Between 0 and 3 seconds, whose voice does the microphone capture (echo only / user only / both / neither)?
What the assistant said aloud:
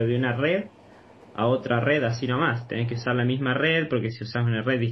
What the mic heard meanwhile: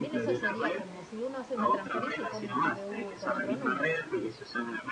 both